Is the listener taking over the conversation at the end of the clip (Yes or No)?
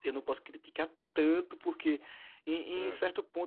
No